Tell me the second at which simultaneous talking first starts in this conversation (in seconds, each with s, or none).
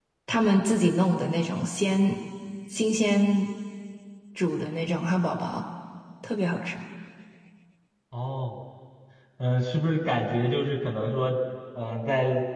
none